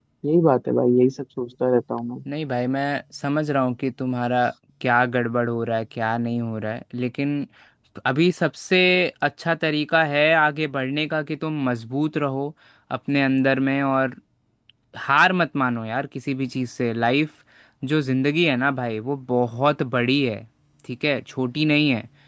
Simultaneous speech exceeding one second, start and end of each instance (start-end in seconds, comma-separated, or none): none